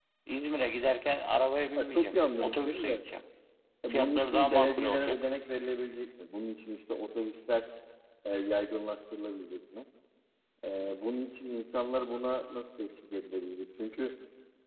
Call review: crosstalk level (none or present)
present